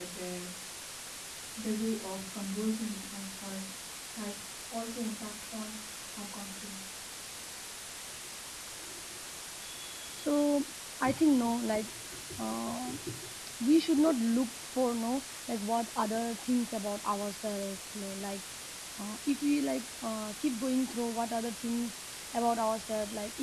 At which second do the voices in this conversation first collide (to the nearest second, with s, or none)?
none